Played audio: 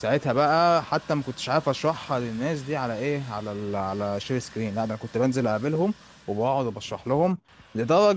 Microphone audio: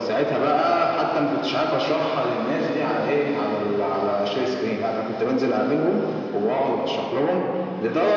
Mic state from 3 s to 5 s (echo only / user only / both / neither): echo only